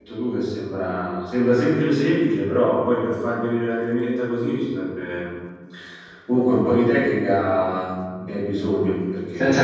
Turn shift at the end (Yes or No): Yes